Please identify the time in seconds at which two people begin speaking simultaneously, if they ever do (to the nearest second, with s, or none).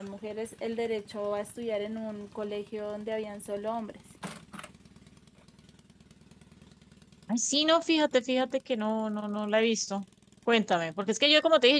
none